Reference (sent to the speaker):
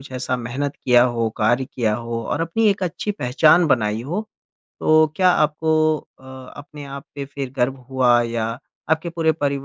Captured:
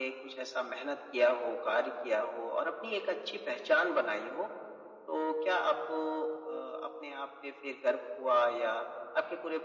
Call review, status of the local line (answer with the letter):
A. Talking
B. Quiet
B